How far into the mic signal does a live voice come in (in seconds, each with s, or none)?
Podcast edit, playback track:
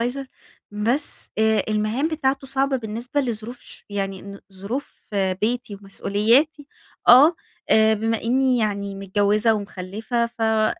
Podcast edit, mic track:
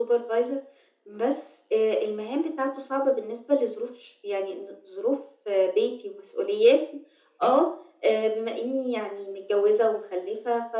none